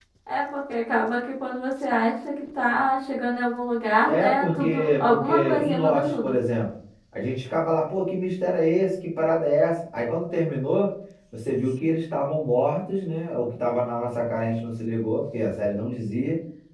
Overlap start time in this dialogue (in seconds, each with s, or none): 4.1 s